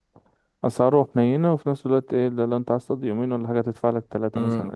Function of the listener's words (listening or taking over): taking over